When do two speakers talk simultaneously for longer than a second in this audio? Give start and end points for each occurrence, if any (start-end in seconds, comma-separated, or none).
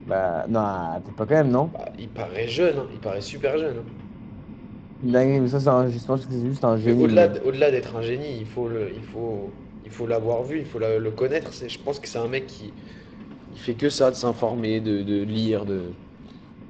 none